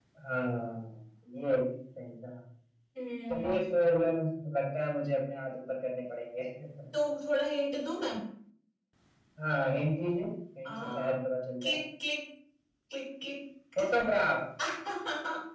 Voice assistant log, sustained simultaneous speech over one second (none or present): none